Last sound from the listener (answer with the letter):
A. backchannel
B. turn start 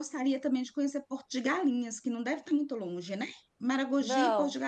A